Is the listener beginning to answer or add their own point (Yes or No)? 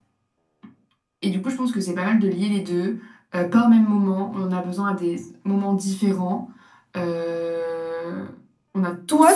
Yes